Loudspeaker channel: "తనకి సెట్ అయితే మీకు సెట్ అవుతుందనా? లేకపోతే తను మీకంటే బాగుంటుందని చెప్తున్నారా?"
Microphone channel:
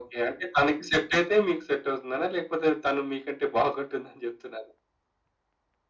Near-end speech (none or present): none